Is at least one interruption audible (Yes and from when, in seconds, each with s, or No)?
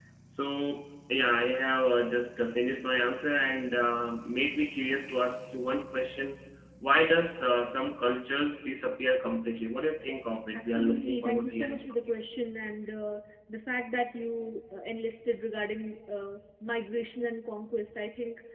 Yes, from 10.5 s